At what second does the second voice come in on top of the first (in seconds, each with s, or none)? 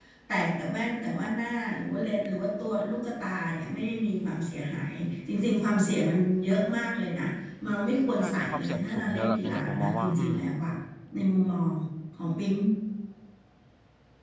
8.2 s